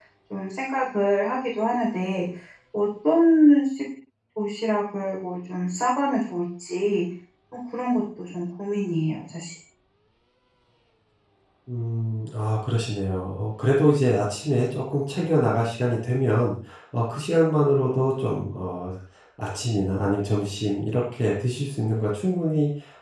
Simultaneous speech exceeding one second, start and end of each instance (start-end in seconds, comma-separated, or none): none